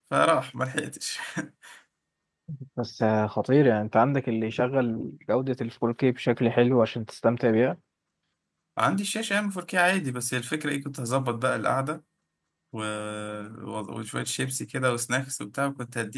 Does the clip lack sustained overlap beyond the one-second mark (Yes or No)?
Yes